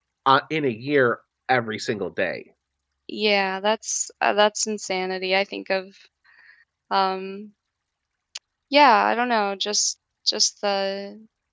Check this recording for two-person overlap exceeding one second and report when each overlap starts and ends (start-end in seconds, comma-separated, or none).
none